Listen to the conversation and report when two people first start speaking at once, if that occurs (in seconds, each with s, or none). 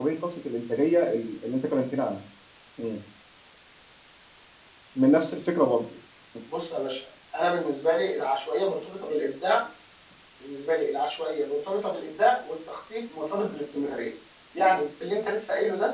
none